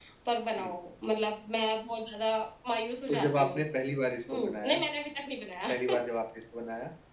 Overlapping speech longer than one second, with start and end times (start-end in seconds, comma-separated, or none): none